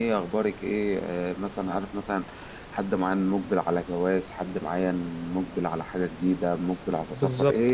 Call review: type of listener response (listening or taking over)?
listening